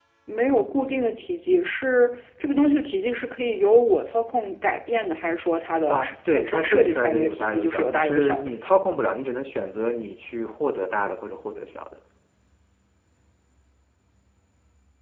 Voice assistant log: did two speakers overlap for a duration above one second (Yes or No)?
Yes